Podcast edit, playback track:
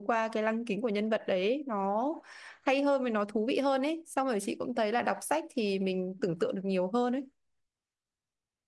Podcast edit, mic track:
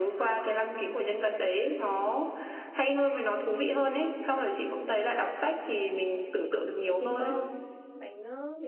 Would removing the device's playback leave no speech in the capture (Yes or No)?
No